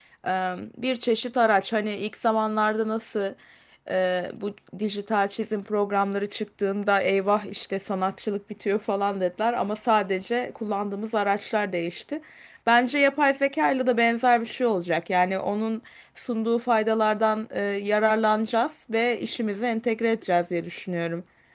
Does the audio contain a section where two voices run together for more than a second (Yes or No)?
No